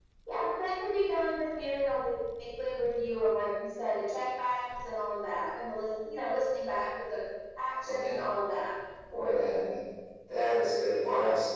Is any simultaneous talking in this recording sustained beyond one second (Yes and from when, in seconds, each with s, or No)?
No